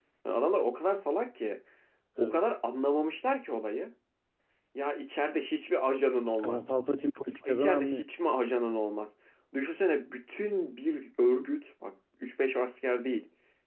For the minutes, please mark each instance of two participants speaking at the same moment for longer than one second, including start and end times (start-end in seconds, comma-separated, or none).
none